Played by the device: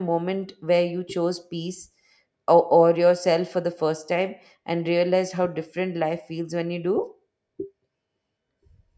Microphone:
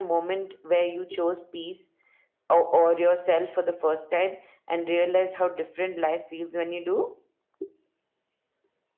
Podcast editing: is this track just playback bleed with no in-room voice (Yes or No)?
Yes